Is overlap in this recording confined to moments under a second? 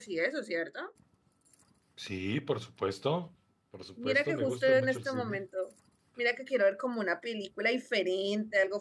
No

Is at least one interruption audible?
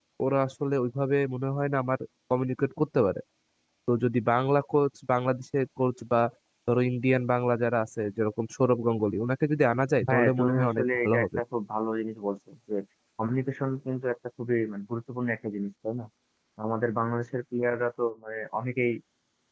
Yes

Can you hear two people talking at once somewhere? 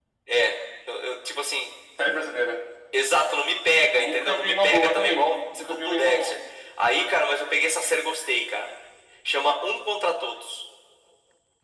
Yes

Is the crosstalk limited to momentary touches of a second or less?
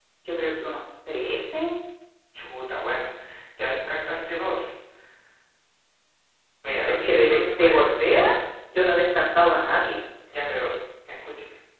No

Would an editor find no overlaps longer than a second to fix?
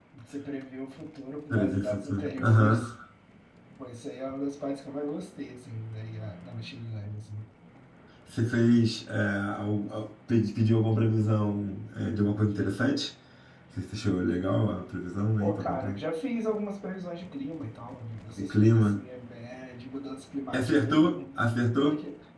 No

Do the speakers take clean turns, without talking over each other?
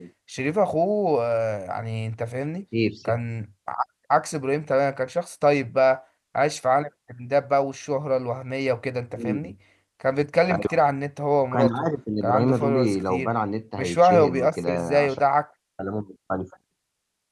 No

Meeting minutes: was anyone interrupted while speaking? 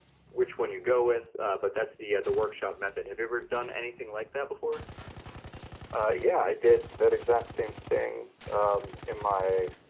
No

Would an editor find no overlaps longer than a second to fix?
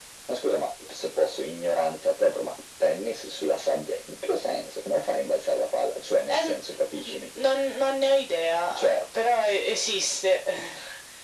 Yes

